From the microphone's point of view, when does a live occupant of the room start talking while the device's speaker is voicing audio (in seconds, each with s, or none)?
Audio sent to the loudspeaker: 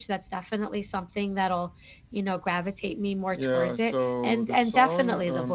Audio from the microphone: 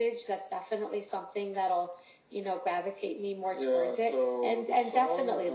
none